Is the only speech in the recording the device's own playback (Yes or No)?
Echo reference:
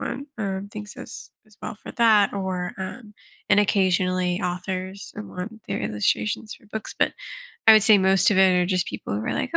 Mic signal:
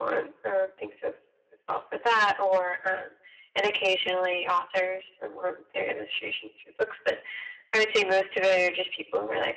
Yes